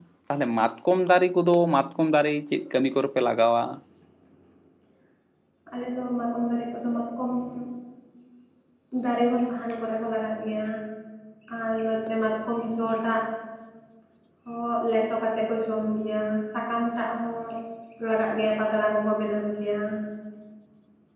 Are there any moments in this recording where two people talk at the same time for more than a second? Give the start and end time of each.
none

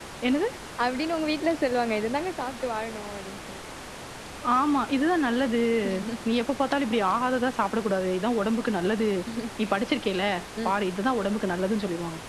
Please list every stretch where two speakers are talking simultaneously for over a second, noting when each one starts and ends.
none

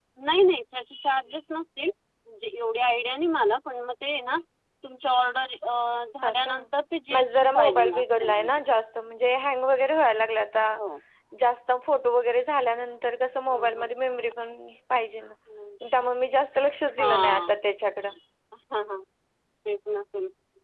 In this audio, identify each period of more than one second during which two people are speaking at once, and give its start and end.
7.1-8.5

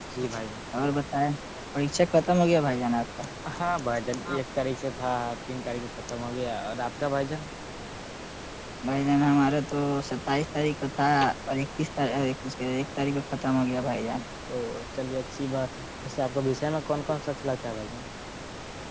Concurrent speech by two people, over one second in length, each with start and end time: none

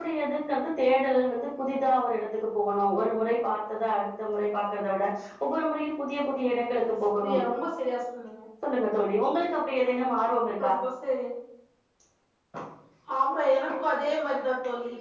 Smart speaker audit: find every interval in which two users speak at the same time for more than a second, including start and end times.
none

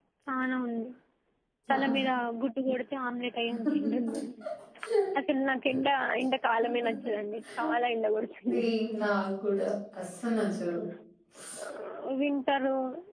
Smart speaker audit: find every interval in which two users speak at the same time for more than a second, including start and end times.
none

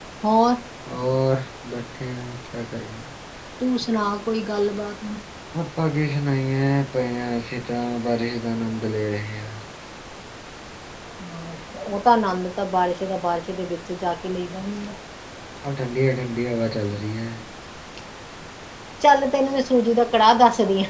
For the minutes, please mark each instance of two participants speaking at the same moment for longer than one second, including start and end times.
none

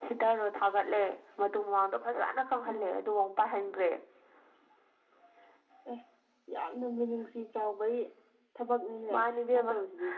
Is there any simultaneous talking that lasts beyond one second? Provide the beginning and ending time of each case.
none

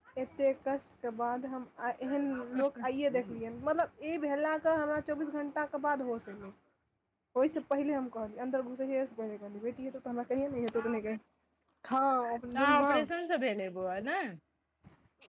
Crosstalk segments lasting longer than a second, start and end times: none

